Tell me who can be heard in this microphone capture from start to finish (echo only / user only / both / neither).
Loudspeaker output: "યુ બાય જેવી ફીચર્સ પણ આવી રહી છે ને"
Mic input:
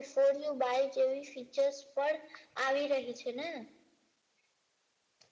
echo only